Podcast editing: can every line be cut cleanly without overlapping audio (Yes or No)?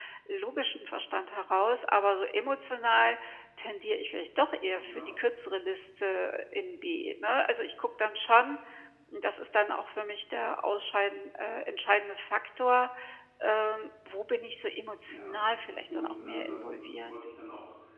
No